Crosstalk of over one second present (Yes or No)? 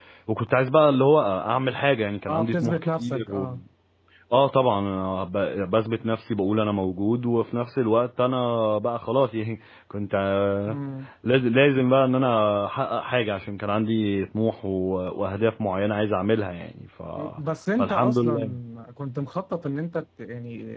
Yes